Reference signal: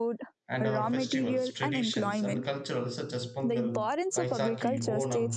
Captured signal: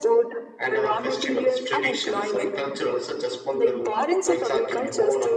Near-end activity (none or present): none